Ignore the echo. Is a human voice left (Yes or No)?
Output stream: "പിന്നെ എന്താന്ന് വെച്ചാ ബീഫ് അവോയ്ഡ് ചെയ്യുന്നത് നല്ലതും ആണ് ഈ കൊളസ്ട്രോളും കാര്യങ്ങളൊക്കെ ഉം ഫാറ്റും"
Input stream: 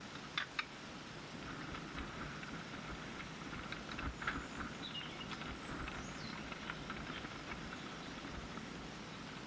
No